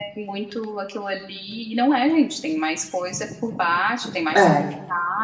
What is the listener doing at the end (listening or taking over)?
listening